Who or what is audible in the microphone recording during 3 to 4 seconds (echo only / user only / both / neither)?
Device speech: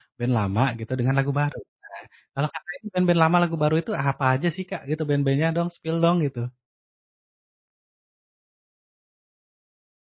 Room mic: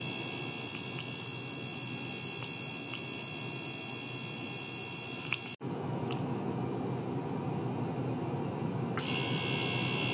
neither